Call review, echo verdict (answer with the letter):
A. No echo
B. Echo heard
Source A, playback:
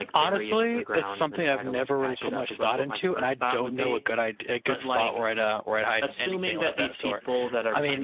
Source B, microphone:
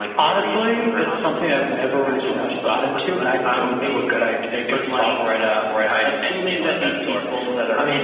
B